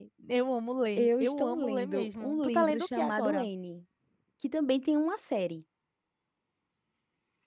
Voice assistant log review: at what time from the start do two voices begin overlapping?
1 s

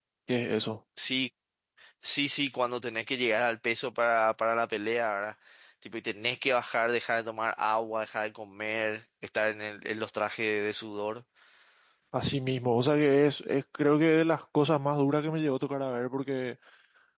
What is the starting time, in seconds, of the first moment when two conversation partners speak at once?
none

